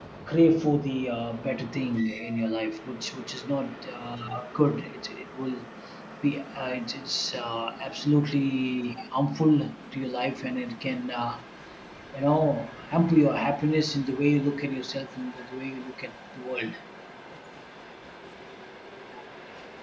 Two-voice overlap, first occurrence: none

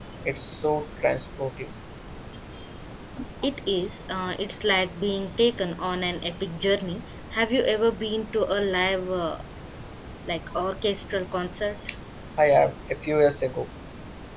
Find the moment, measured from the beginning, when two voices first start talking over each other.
none

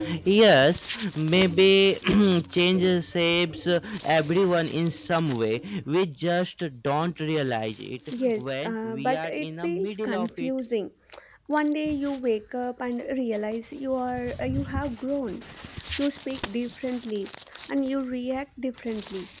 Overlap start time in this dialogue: 8.1 s

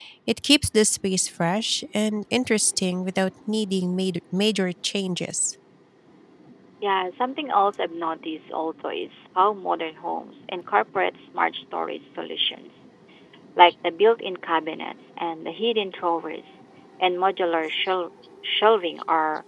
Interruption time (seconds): none

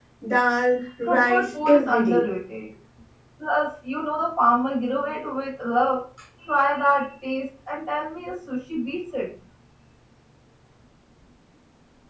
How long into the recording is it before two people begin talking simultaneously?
1.0 s

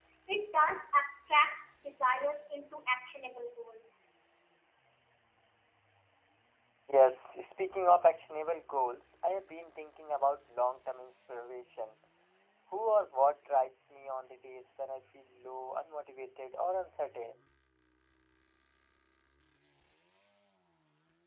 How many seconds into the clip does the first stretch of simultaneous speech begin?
none

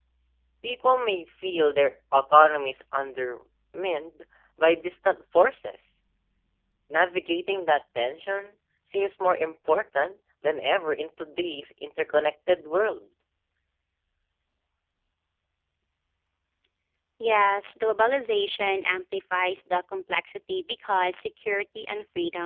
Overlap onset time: none

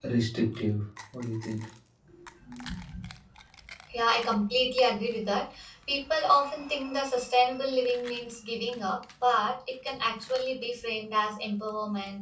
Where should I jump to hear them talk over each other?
none

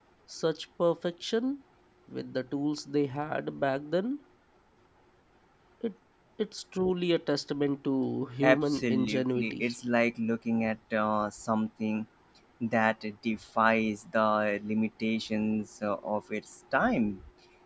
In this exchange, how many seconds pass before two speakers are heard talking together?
8.4 s

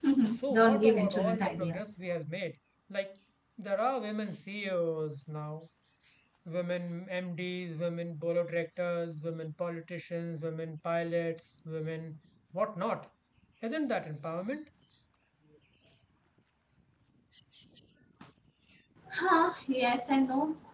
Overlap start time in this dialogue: 0.5 s

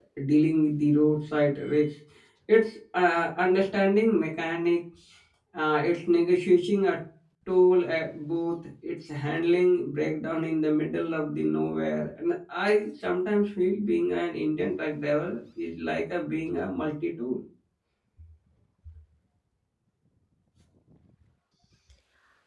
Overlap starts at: none

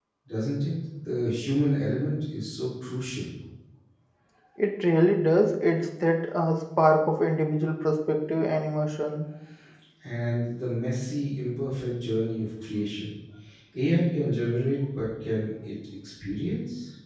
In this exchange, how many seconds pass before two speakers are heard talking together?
none

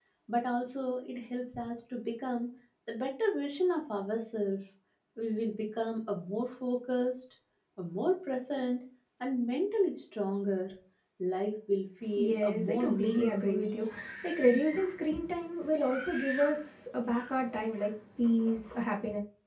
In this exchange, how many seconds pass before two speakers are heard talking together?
12.2 s

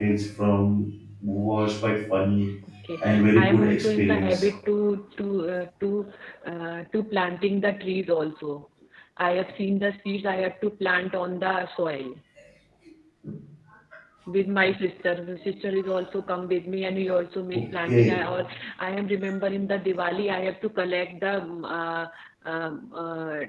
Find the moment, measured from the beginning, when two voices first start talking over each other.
3.0 s

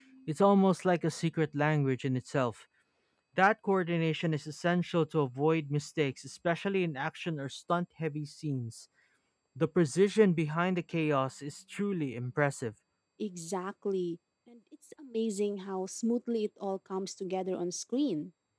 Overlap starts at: none

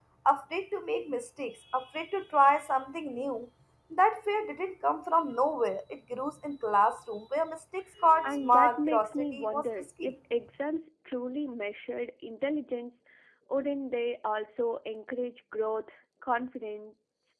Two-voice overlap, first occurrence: 8.2 s

